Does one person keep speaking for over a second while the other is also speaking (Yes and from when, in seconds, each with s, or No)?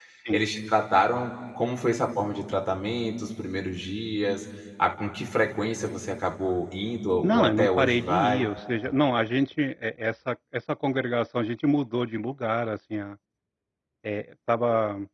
Yes, from 7.2 s